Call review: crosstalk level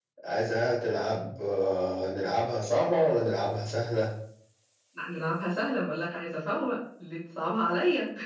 none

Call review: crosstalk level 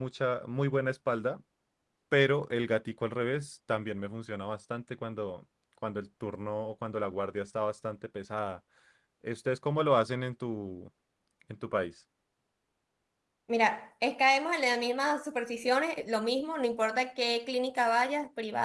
none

